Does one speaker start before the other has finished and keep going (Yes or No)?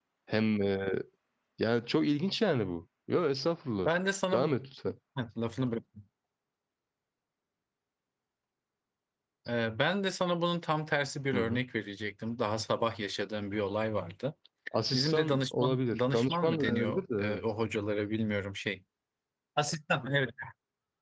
Yes